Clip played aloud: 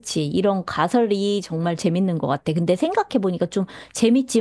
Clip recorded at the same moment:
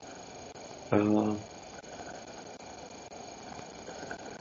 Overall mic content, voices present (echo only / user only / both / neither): user only